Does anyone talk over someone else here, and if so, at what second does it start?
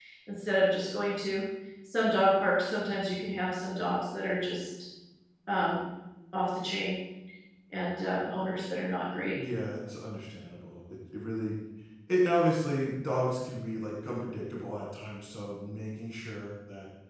none

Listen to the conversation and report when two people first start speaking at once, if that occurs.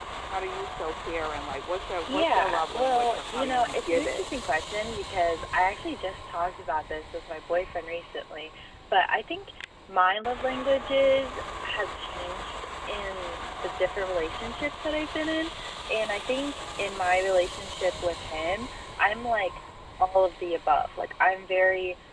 2.1 s

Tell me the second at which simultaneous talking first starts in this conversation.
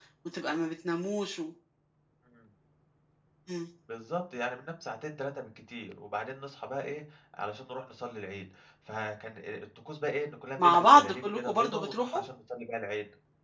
10.6 s

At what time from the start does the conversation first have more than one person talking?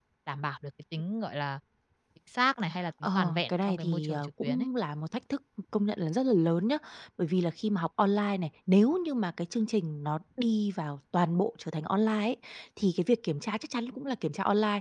3.0 s

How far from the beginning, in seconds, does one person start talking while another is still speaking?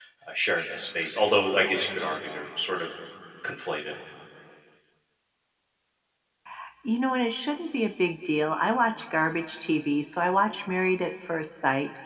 none

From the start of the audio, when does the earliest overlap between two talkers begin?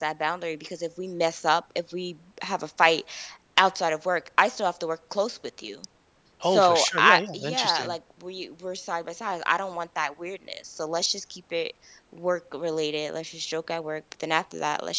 6.4 s

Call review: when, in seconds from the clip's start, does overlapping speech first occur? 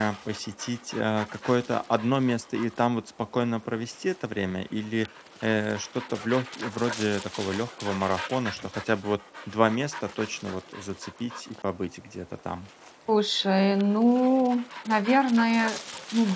none

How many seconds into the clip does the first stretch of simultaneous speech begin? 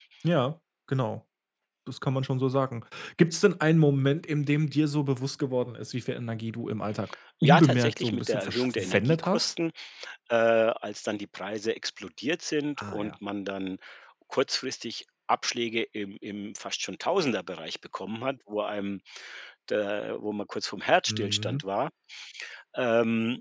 7.4 s

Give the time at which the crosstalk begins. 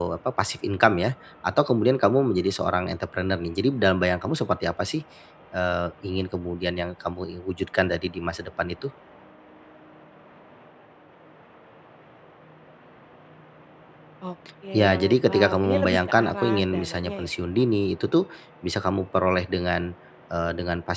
14.7 s

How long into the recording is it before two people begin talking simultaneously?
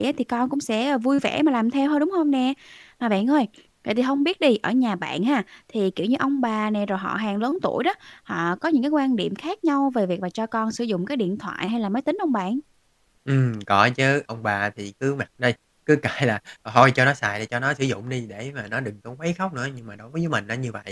none

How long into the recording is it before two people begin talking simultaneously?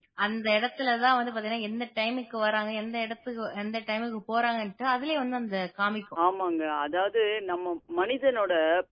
none

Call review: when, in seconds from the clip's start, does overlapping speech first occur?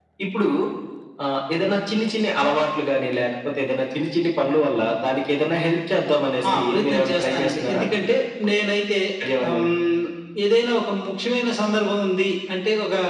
6.5 s

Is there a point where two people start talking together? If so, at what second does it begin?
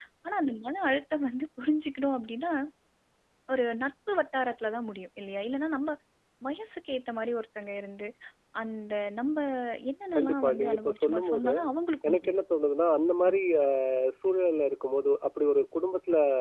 10.1 s

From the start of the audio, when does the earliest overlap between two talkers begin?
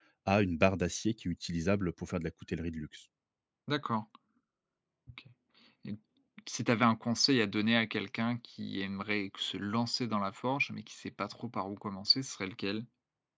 none

